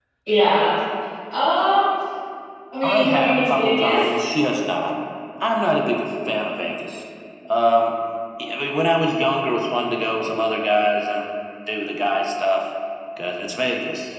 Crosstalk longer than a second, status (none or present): present